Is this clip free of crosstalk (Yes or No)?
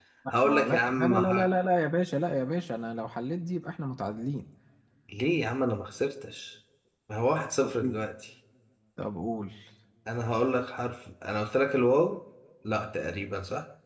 No